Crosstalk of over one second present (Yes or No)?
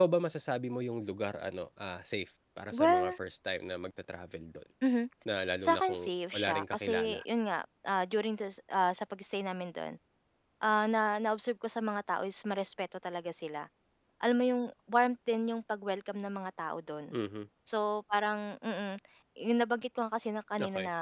Yes